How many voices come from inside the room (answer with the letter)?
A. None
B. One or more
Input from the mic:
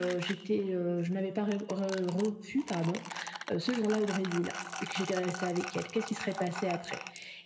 A